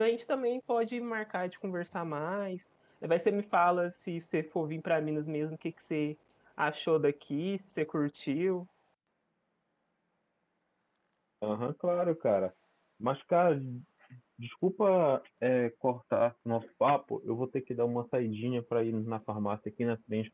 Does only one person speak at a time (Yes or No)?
Yes